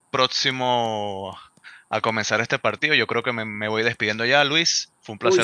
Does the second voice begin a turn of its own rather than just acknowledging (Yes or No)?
Yes